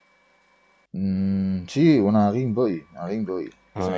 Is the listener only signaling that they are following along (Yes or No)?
Yes